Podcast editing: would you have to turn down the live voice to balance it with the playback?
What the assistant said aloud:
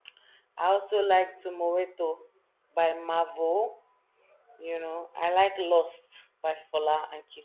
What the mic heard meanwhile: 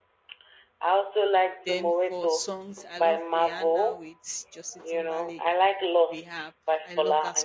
No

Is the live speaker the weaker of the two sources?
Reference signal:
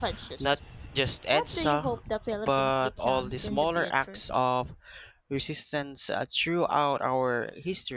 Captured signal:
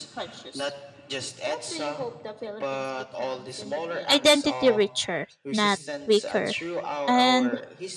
No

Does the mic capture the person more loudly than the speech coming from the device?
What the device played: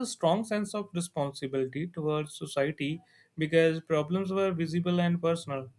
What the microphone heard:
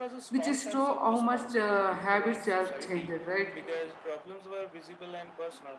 Yes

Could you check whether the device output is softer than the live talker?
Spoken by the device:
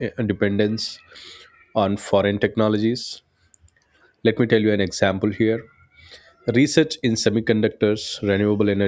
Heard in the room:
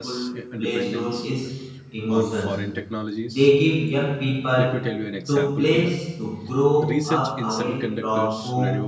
Yes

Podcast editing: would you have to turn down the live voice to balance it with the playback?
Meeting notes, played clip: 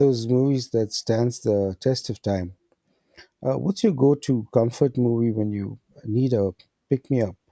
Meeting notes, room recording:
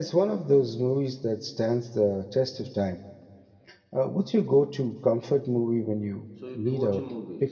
No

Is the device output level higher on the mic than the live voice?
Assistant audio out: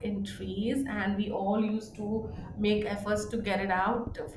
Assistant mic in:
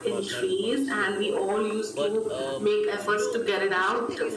Yes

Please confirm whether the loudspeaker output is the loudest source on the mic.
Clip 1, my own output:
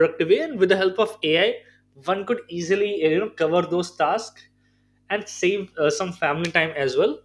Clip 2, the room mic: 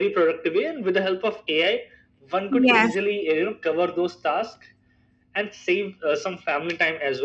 No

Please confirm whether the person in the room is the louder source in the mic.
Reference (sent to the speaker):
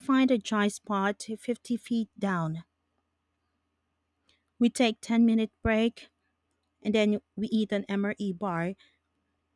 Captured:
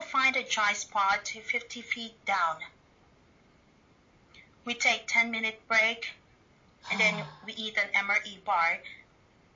No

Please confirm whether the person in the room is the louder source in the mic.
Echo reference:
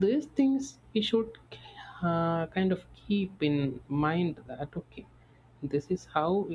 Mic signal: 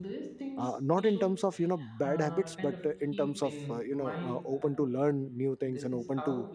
Yes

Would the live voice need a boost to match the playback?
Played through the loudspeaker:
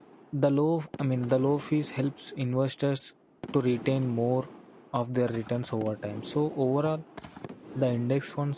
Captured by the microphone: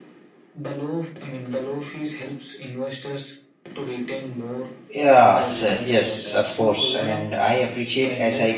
No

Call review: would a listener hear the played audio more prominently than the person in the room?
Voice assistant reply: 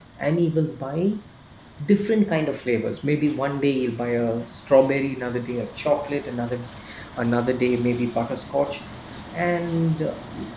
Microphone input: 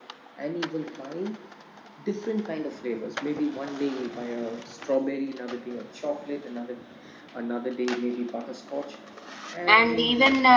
No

